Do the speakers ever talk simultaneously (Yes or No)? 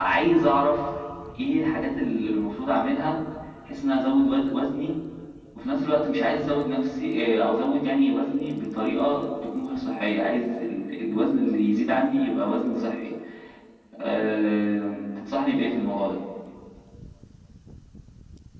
No